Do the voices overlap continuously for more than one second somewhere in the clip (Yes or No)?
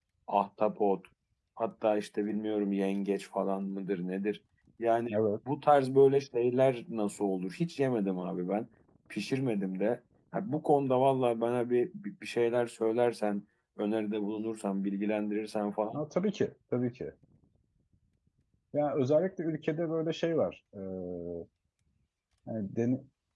No